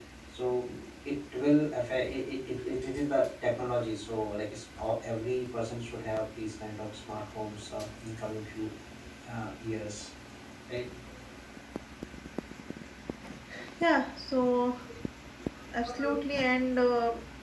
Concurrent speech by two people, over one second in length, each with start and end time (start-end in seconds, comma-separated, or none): none